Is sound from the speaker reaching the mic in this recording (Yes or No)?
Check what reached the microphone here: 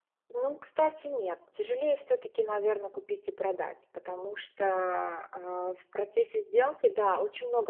No